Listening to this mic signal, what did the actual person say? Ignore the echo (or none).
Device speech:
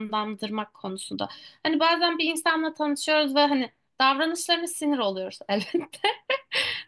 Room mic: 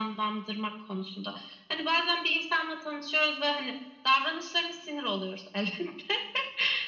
none